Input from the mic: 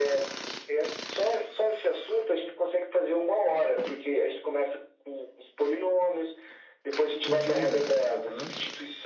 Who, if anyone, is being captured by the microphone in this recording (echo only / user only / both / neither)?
both